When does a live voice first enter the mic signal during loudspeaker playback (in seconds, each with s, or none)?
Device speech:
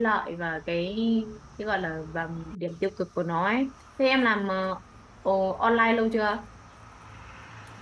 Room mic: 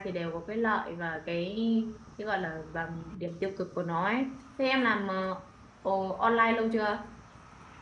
none